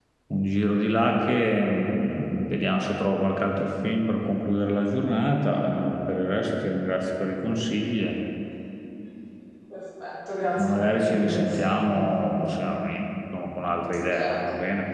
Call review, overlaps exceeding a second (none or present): present